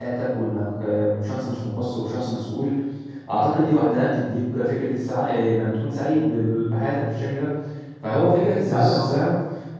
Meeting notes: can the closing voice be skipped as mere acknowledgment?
Yes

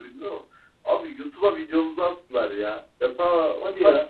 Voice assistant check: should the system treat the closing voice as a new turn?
No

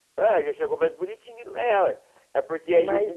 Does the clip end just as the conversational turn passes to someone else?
No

